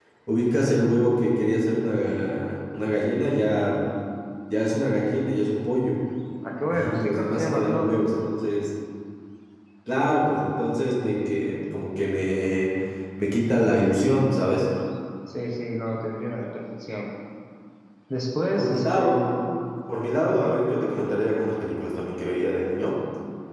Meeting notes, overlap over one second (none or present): present